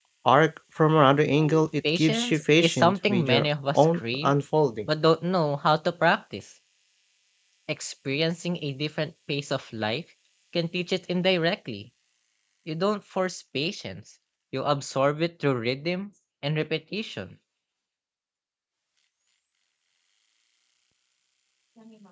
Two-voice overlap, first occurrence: 2 s

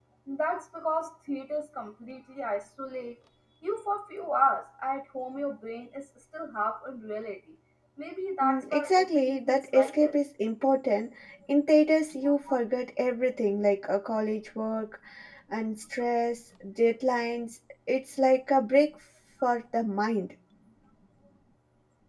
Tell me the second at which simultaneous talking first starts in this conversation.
8 s

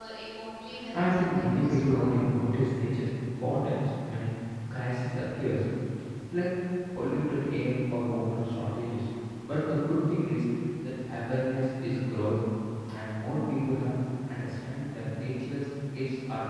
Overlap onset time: 1 s

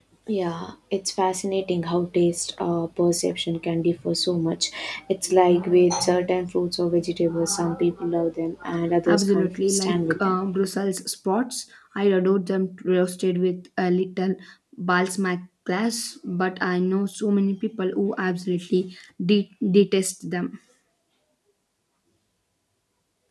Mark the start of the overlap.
9 s

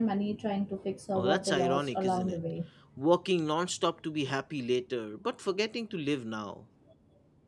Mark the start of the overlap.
1 s

